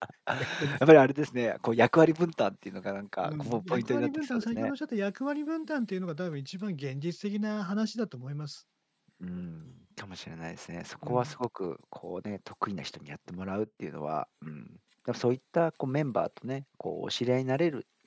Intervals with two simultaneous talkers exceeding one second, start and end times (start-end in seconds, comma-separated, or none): 3.2-4.7